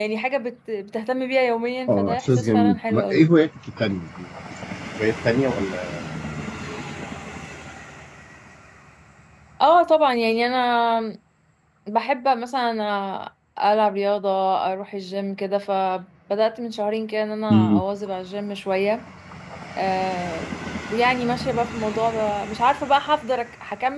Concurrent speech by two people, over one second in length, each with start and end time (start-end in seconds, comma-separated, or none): 1.9-3.2